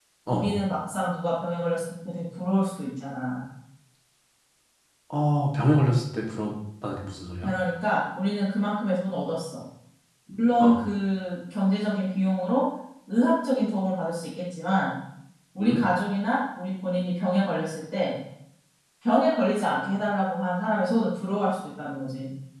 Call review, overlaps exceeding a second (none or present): none